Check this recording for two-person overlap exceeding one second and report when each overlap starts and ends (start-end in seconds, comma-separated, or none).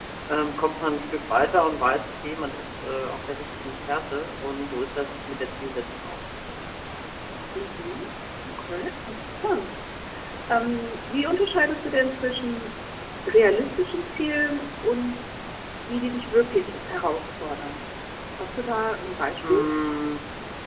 none